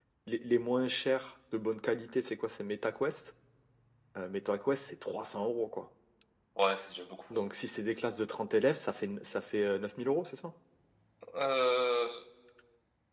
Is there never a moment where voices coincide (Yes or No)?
Yes